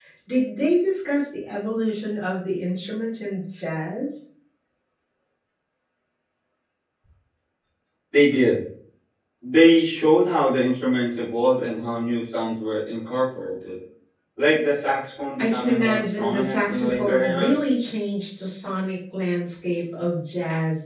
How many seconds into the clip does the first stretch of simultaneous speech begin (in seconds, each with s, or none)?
15.4 s